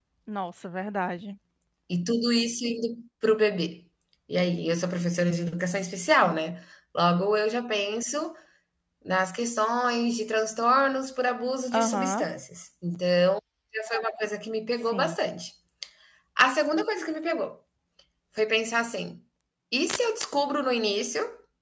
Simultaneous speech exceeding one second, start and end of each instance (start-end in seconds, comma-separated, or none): none